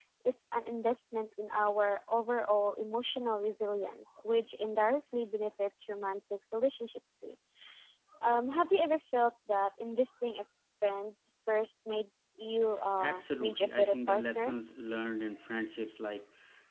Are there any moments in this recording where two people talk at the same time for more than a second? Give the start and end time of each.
13.0-14.5

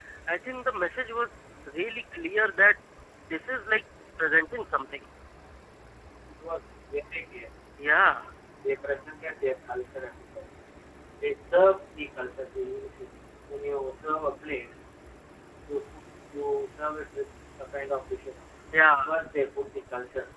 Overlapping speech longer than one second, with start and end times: none

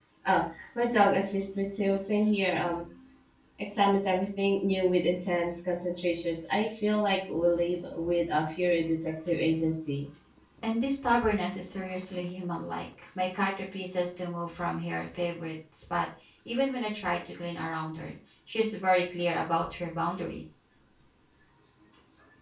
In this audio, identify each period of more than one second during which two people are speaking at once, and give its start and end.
none

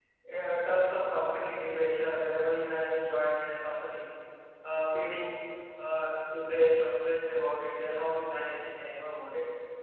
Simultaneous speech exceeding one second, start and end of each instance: none

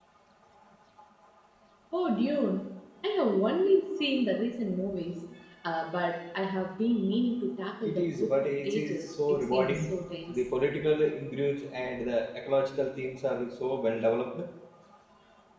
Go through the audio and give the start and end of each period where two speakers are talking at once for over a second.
7.8-9.9

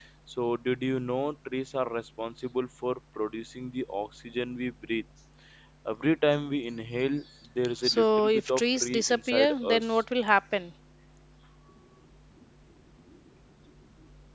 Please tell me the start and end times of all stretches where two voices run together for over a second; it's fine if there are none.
7.8-10.0

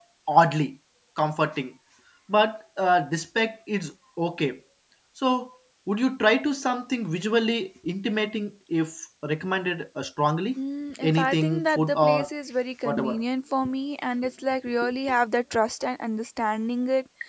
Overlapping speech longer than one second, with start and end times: 11.0-12.3

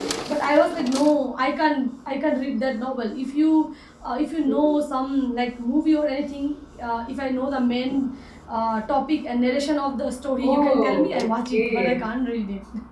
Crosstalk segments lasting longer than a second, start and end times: 10.4-12.0

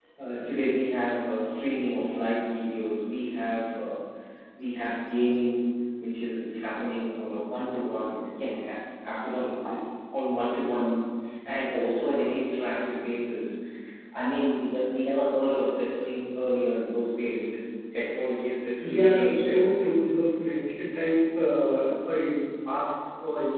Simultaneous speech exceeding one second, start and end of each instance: 18.8-20.0

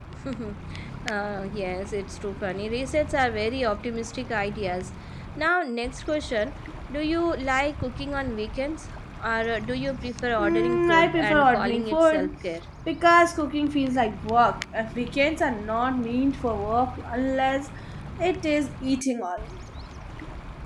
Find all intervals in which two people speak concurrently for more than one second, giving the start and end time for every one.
10.4-12.3

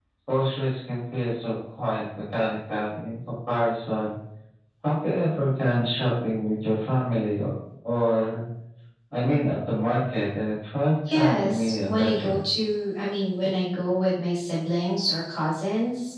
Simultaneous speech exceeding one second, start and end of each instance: 11.1-12.4

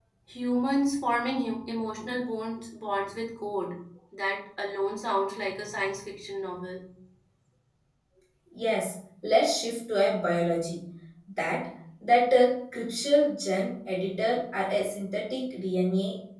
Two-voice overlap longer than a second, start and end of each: none

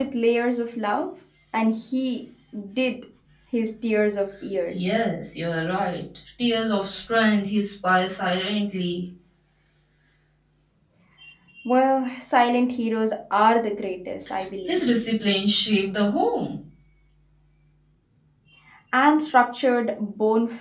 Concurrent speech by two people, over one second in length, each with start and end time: none

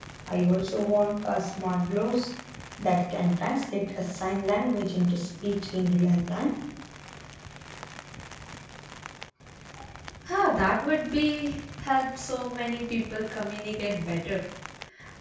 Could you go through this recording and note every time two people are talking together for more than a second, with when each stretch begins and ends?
none

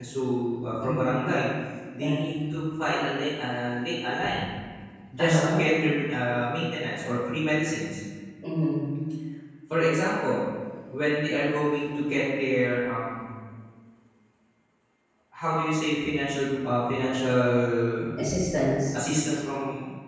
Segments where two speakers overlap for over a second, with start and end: none

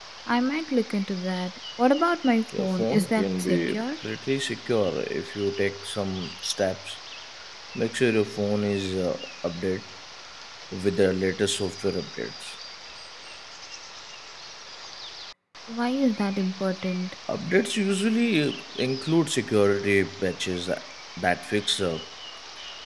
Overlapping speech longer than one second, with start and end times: 2.6-3.8

